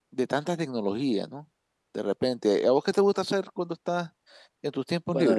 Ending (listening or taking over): taking over